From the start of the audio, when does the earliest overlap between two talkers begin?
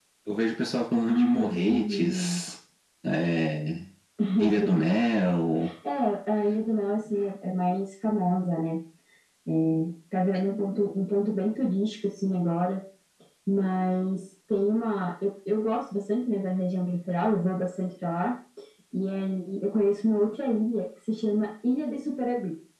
1.1 s

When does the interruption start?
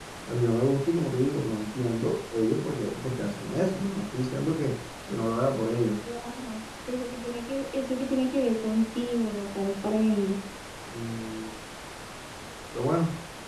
none

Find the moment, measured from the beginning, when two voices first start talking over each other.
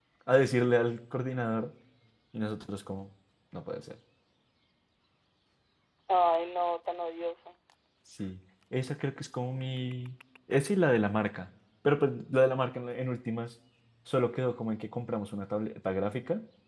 none

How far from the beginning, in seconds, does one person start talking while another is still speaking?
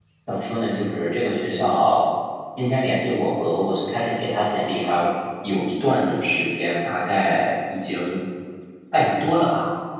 none

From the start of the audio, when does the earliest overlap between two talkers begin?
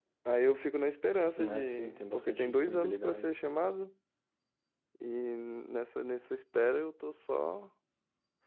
1.4 s

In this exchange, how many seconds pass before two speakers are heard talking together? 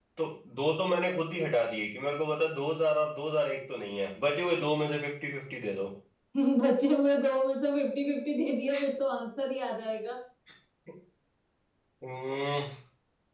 none

